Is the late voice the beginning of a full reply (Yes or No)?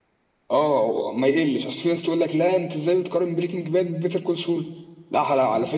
No